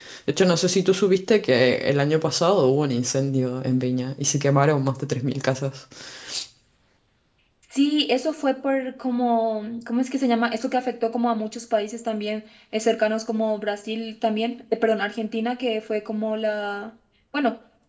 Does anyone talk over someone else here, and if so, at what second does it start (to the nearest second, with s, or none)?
none